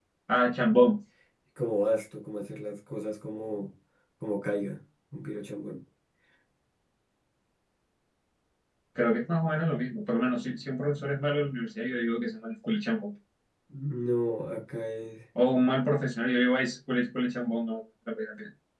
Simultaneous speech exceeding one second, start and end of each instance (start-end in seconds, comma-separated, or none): none